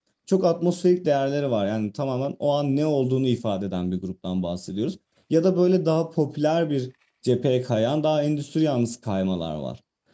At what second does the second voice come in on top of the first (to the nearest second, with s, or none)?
none